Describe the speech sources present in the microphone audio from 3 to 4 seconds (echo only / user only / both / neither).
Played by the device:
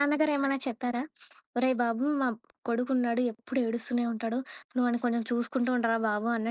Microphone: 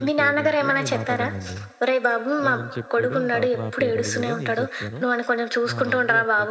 both